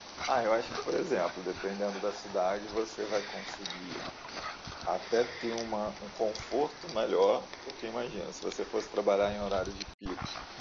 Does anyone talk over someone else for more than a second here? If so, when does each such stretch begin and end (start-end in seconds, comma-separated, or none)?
none